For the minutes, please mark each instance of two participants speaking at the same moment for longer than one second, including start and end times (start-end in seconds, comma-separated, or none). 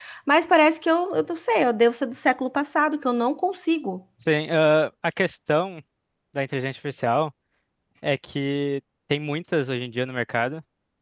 none